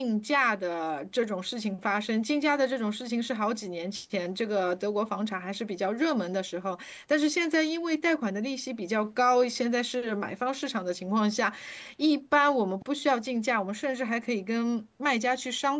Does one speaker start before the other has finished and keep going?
No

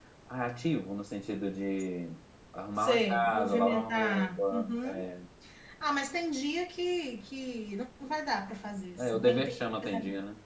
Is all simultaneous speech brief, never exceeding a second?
No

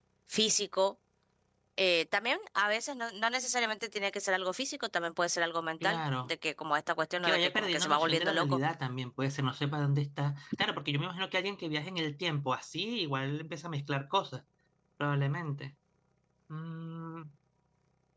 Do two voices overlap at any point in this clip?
Yes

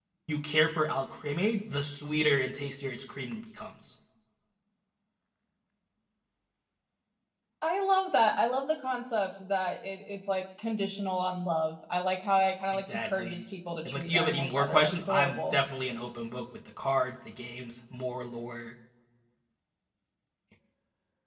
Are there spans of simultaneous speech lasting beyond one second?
Yes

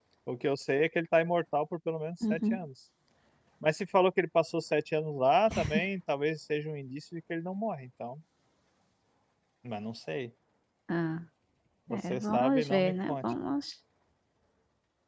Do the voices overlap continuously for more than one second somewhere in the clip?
Yes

